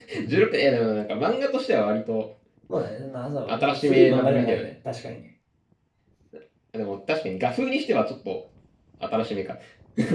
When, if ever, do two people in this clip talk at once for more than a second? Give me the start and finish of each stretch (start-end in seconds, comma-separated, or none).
3.5-4.7